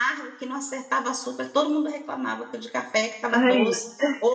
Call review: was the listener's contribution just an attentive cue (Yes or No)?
Yes